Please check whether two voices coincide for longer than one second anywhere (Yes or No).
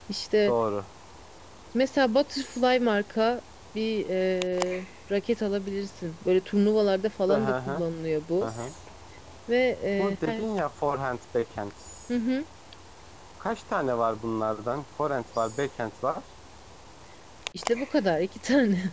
No